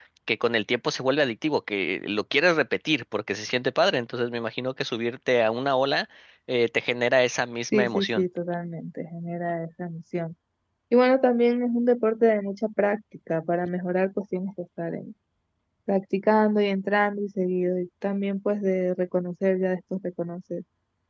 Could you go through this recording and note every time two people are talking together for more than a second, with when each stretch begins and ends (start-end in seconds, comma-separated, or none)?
none